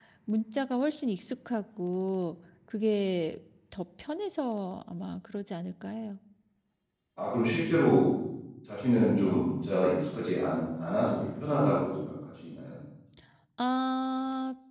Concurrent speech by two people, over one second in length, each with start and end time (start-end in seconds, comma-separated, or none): none